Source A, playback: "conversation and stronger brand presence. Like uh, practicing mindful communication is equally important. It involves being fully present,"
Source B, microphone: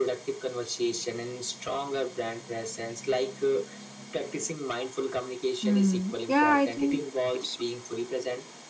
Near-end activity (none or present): present